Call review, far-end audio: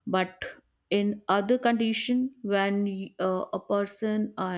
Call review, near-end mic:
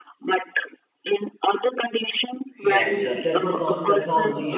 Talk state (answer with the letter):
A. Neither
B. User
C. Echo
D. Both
D